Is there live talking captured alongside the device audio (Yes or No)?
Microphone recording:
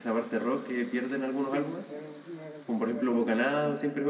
Yes